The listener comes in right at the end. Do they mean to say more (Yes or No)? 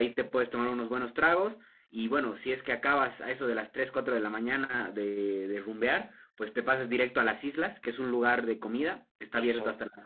No